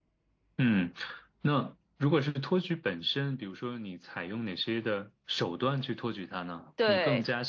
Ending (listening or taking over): listening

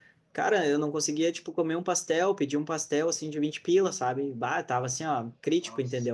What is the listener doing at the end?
listening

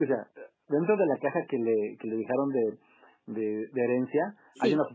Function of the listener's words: listening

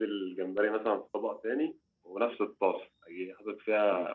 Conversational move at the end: listening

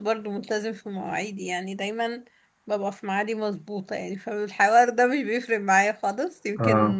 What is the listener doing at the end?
listening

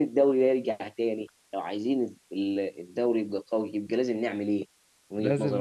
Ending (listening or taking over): taking over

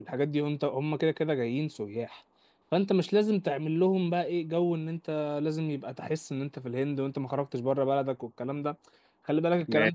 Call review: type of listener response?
listening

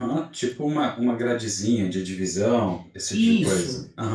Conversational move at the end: taking over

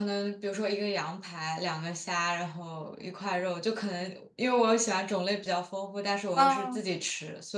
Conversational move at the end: listening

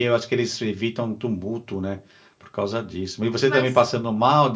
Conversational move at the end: listening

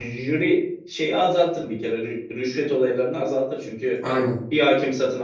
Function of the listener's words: listening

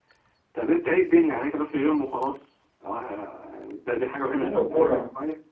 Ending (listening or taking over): taking over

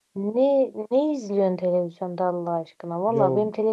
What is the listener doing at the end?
listening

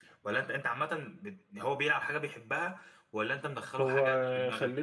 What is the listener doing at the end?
taking over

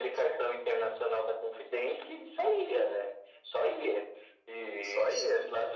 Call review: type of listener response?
listening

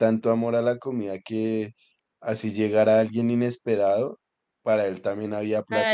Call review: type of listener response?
taking over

